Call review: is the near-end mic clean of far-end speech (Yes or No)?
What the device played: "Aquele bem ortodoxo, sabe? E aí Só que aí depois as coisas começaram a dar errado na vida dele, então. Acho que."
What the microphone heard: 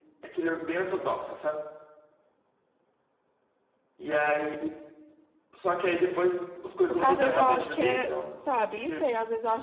No